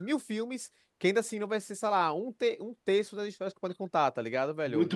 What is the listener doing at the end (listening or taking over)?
taking over